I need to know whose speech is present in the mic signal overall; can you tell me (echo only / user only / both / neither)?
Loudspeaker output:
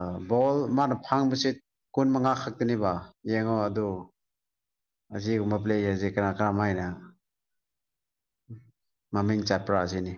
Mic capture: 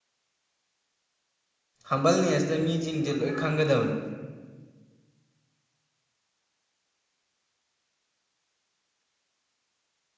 user only